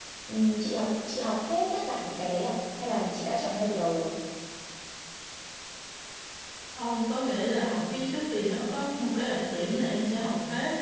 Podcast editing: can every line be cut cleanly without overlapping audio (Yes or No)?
Yes